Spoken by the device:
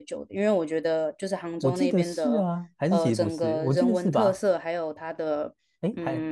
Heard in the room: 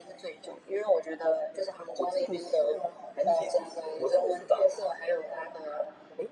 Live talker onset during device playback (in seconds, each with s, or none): none